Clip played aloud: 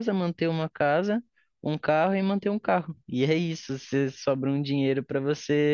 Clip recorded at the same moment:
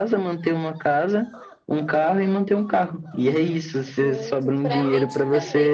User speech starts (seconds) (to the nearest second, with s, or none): 4 s